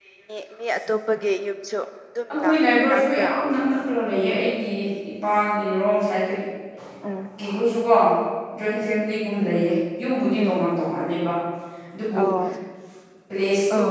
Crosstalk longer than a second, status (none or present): none